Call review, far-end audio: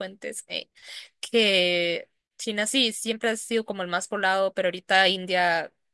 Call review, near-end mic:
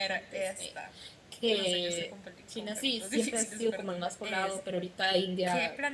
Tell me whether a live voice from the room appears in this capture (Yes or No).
Yes